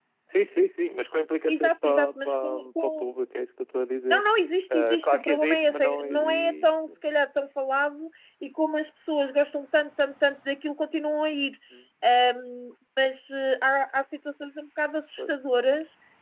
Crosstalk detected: Yes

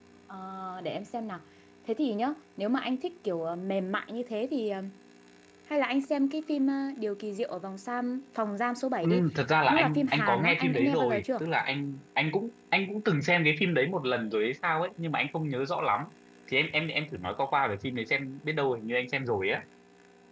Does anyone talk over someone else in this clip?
Yes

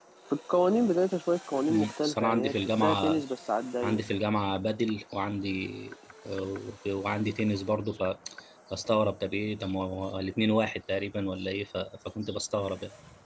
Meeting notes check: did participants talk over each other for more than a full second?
Yes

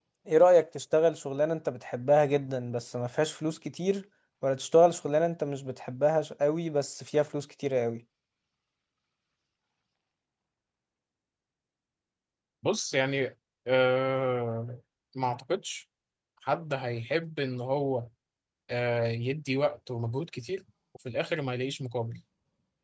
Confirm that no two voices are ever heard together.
Yes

